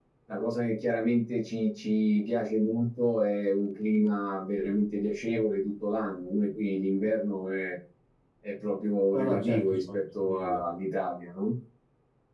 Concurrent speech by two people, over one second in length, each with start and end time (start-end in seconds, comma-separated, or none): 9.1-10.6